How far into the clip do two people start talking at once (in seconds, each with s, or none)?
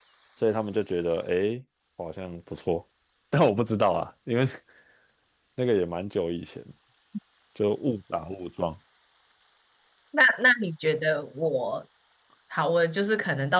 none